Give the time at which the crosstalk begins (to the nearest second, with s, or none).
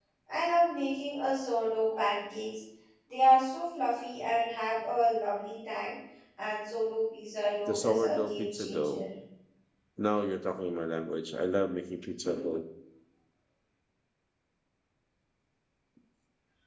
8 s